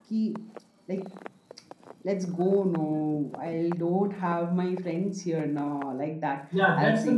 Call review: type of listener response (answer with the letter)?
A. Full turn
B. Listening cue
A